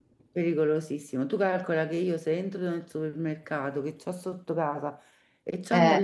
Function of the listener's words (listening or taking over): listening